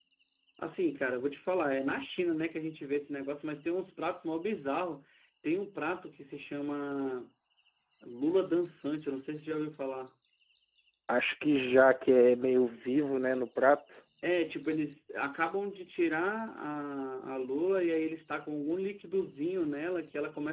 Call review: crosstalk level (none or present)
none